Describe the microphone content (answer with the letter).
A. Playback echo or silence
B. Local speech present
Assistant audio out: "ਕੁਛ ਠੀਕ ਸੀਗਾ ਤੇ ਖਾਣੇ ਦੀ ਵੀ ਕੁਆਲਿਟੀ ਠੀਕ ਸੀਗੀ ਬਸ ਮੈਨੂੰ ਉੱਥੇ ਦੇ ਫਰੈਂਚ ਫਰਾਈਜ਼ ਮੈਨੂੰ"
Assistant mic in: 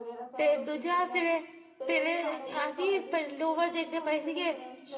B